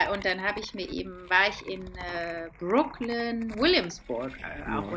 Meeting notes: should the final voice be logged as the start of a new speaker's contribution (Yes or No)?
No